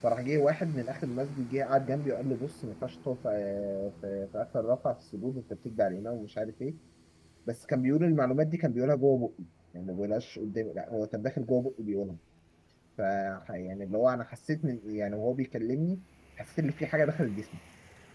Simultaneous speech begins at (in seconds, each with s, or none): none